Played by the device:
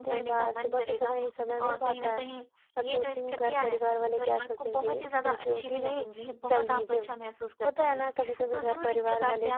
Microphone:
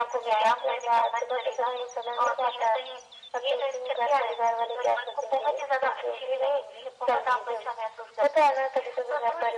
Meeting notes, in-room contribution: none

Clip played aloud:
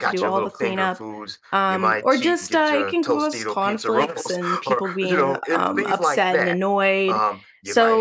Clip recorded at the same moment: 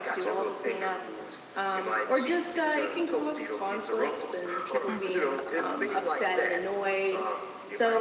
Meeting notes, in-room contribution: present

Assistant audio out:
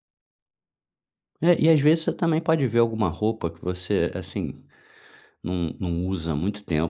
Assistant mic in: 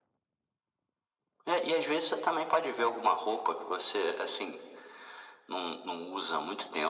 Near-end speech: none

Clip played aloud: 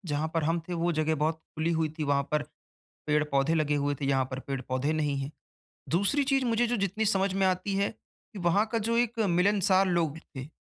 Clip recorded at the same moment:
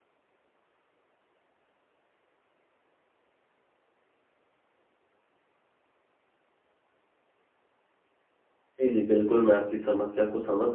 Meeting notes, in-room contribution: present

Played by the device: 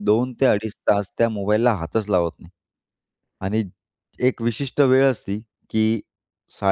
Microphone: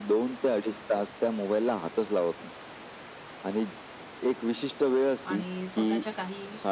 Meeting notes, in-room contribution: present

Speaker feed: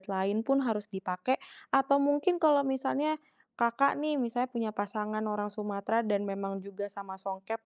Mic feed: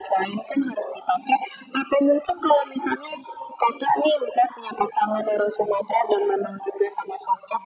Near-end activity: none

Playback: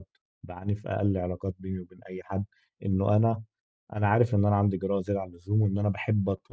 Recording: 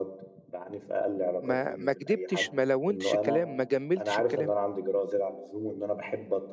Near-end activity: present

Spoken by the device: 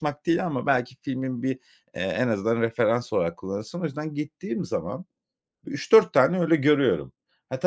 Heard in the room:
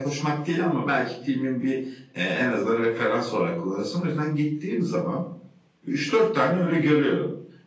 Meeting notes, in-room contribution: none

